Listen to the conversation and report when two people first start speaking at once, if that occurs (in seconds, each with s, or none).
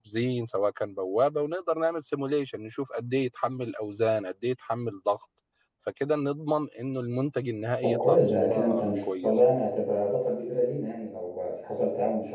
7.8 s